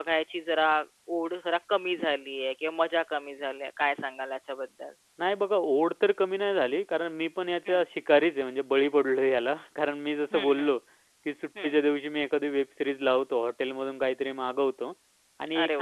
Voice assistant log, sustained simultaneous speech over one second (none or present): none